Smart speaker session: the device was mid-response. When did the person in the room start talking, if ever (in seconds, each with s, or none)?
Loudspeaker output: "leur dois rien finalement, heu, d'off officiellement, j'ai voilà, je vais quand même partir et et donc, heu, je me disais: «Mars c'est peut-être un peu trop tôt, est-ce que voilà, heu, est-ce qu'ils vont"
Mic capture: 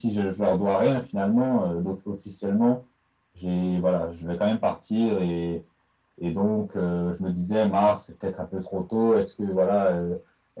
none